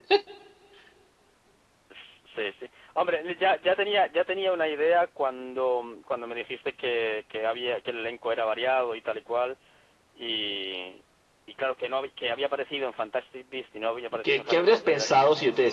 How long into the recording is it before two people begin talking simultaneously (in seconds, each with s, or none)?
14.2 s